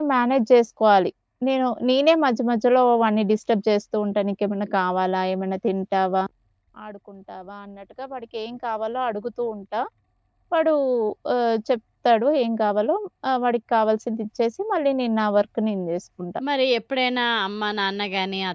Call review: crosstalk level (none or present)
none